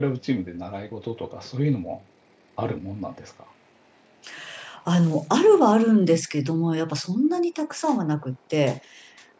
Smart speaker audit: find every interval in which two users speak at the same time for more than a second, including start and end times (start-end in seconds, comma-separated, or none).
none